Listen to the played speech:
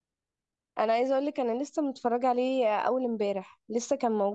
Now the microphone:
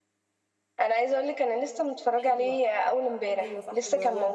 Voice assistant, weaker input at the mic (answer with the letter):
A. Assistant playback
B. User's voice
B